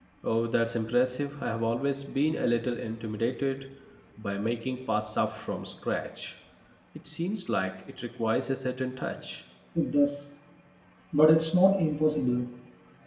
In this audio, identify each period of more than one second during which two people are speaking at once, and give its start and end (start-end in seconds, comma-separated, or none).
none